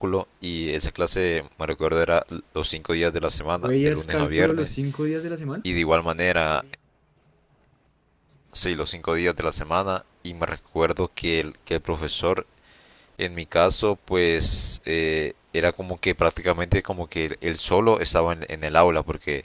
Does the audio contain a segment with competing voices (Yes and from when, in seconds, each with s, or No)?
Yes, from 3.6 s